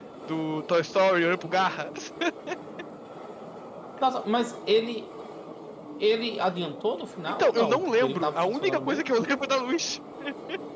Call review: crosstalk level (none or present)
present